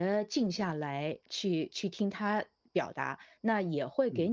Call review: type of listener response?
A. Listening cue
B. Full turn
A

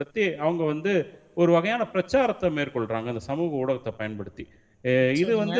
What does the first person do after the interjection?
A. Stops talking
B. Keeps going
B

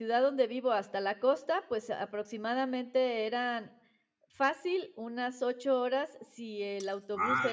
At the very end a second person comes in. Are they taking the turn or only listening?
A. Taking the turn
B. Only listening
B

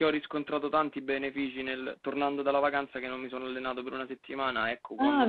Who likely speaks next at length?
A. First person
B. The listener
B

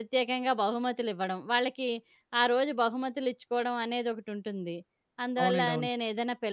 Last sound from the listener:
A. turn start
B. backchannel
B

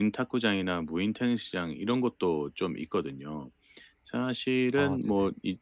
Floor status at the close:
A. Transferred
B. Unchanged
B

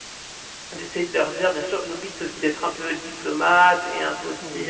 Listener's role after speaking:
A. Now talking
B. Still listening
B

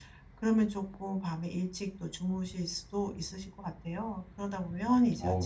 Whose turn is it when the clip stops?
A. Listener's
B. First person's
B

